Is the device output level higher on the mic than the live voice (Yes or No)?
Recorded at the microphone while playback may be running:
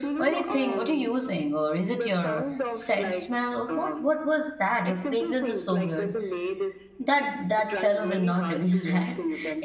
No